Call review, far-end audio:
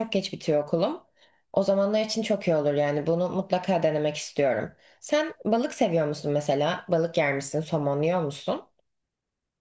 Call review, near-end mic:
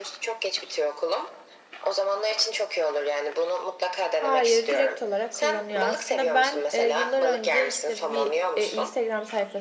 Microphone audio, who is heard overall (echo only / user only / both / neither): both